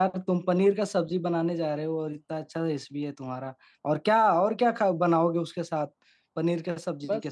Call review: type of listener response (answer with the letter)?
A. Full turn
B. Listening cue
A